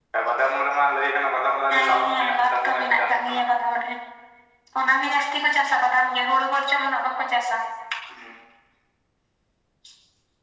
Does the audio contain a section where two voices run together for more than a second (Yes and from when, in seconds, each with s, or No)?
Yes, from 1.7 s